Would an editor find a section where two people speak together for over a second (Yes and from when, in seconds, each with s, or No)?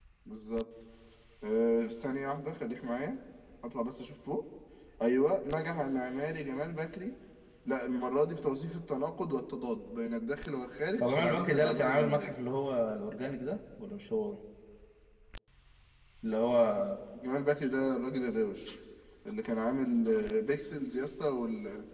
Yes, from 11.0 s